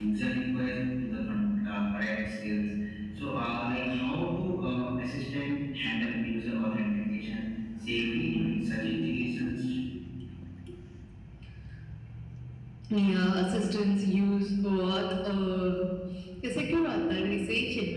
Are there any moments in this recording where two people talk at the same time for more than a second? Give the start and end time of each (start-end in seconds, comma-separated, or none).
none